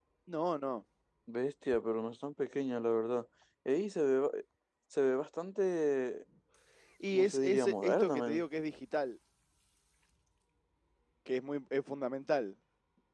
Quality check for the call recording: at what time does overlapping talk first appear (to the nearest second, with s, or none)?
7 s